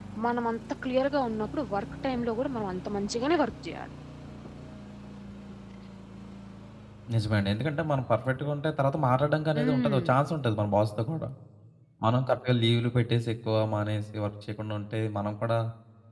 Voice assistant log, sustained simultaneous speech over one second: none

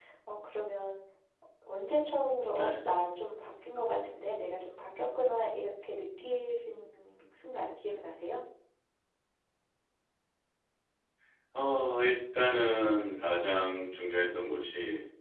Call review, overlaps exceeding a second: none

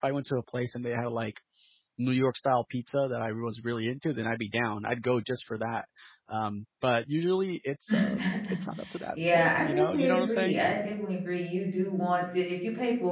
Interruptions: present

